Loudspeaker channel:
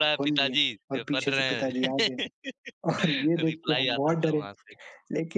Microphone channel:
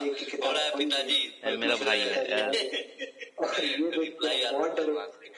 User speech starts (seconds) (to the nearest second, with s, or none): 1 s